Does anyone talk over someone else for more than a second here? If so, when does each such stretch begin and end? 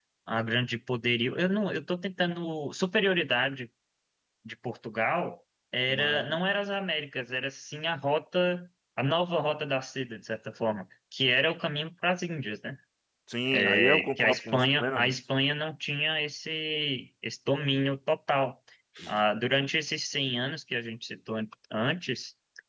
13.8-15.2

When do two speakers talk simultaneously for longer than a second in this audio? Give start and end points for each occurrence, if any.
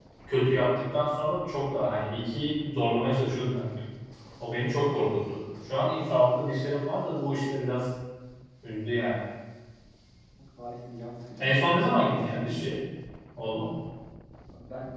none

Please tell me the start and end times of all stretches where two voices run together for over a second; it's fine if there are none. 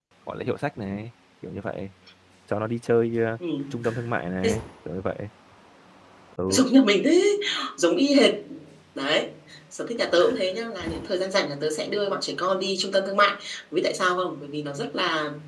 none

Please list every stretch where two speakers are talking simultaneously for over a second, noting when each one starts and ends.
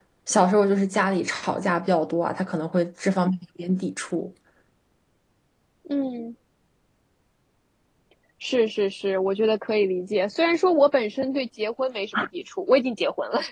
none

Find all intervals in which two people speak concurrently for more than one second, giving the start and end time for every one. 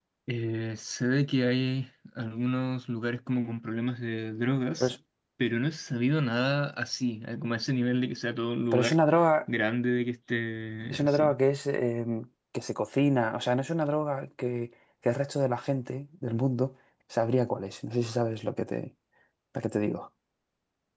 none

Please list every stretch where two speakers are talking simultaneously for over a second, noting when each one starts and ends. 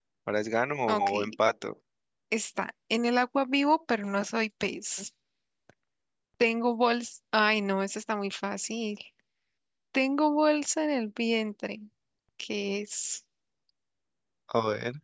none

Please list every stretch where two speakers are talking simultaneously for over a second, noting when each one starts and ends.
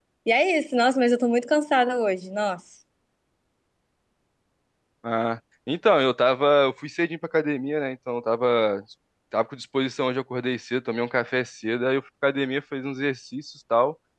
none

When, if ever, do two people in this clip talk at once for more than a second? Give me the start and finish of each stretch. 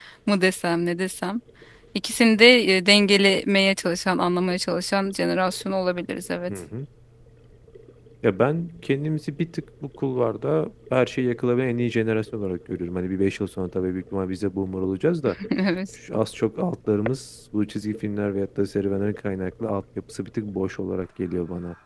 none

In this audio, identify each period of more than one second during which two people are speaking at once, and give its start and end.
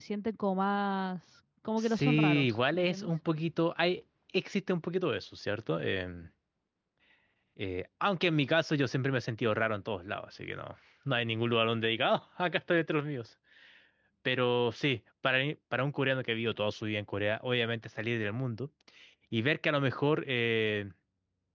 1.8-3.1

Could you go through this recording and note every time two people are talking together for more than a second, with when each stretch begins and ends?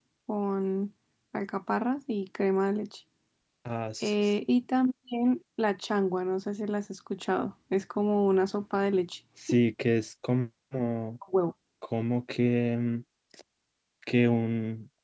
none

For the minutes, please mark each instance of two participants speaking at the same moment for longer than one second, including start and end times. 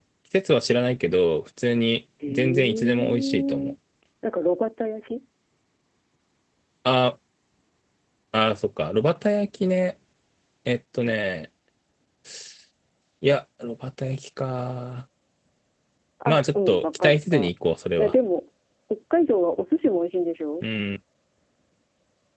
2.3-3.6, 16.3-17.5

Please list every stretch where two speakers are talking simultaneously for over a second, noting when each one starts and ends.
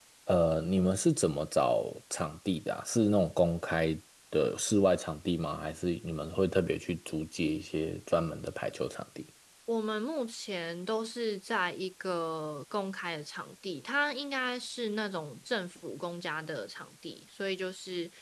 none

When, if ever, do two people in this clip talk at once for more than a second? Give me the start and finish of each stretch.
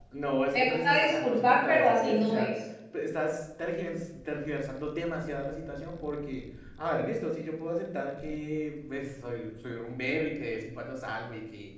0.5-2.5

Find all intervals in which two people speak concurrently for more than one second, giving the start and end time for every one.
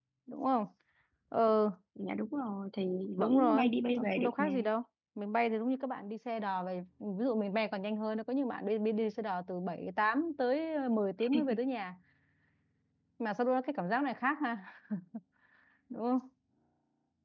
3.2-4.5

